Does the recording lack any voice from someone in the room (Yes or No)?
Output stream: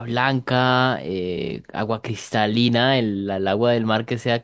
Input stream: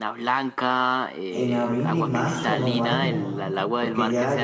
No